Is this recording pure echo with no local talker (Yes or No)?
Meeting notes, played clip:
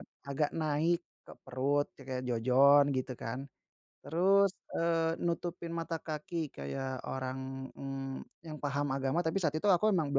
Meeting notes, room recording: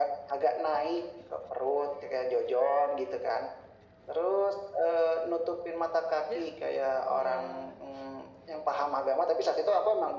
No